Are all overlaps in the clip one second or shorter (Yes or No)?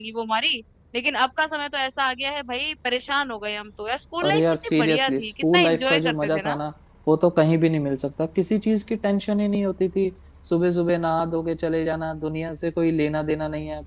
No